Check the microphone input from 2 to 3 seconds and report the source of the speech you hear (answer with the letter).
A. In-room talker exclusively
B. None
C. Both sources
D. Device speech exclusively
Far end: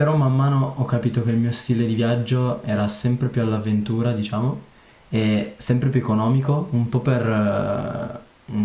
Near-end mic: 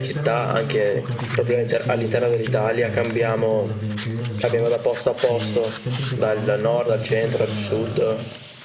C